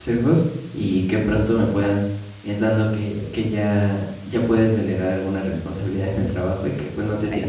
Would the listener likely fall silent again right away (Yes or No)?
Yes